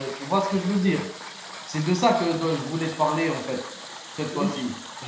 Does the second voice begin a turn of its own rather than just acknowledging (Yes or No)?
Yes